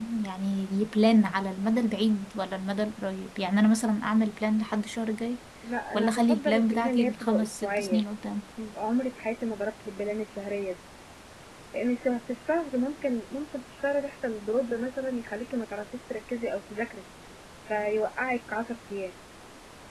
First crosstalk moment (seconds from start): 5.9 s

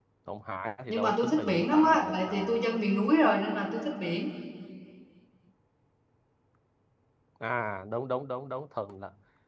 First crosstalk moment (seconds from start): 0.9 s

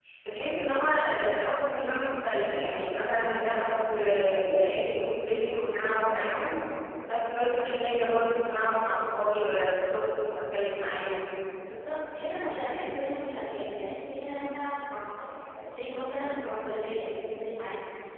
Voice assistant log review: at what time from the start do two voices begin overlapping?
none

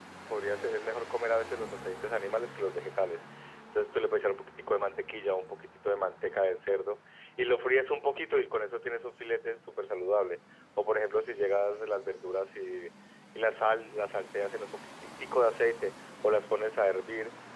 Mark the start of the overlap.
none

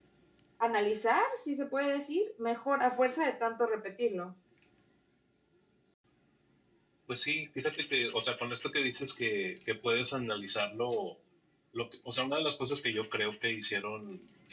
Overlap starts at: none

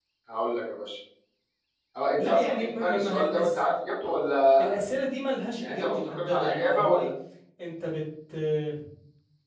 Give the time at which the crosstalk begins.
2.2 s

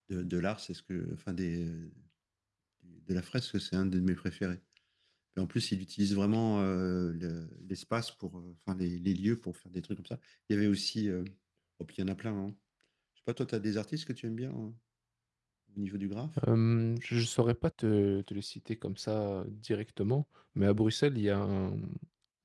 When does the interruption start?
none

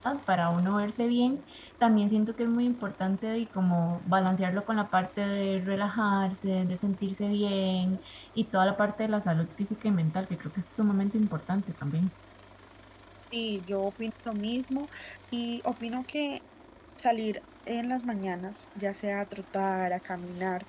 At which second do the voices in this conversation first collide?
none

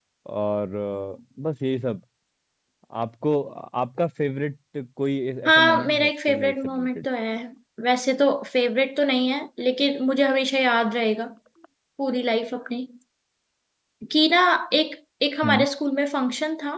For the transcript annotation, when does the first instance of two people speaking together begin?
5.4 s

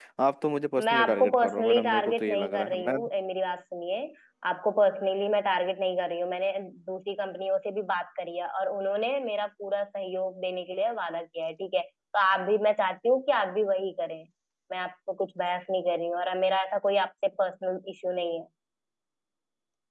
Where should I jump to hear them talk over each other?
0.8 s

